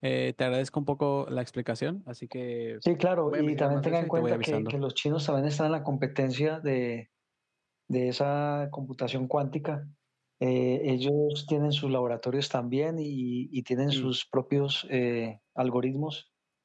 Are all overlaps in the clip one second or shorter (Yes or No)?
No